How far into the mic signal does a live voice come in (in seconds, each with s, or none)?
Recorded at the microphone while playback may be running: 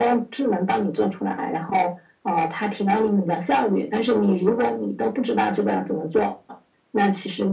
none